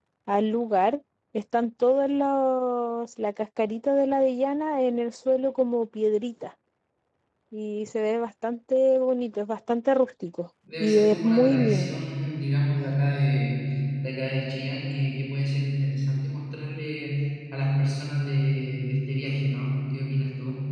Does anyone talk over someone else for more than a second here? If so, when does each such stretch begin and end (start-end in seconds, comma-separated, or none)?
10.8-12.0